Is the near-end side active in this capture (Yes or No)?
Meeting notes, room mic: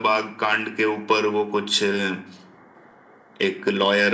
No